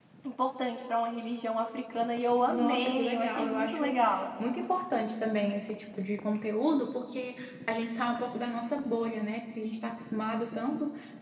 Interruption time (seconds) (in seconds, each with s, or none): 2.5 s